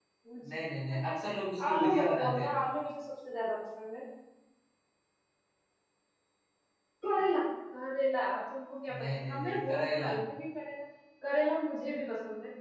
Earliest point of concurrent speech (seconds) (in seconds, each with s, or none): 0.7 s